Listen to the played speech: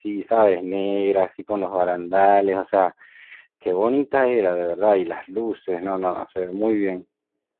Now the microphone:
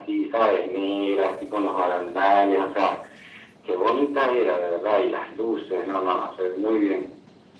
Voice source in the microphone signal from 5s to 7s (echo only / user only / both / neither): echo only